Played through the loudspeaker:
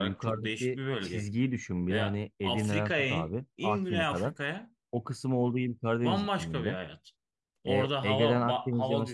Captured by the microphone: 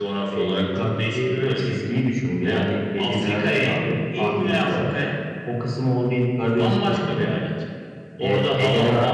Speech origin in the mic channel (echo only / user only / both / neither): echo only